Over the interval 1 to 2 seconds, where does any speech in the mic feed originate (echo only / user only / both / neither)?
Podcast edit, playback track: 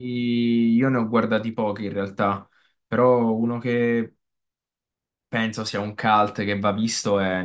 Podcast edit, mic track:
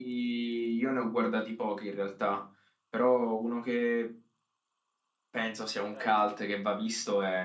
echo only